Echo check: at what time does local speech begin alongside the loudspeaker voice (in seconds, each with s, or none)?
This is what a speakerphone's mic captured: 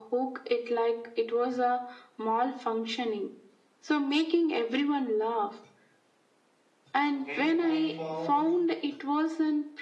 7.1 s